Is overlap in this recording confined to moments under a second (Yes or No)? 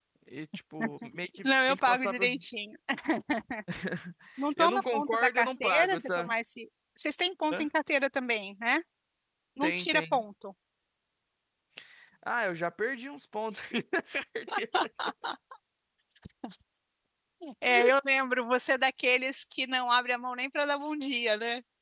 No